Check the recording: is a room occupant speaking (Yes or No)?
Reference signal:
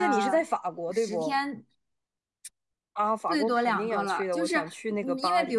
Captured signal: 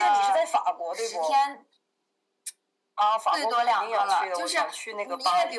No